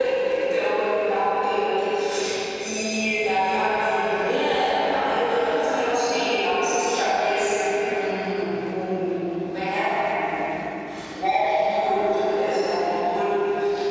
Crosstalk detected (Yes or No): No